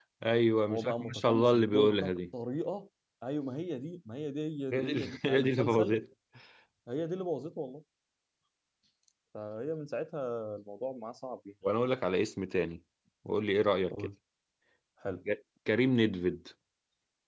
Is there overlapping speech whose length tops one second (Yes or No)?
Yes